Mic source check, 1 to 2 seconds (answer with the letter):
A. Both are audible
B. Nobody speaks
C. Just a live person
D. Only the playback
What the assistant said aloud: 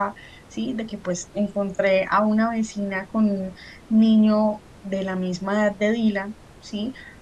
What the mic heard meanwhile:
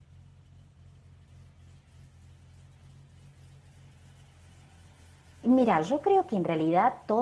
B